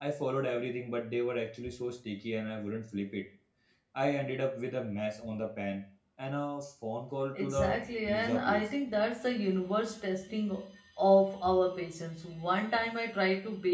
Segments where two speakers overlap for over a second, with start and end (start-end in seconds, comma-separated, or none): 7.4-8.7